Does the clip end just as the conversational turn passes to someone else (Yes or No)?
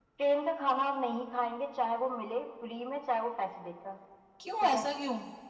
Yes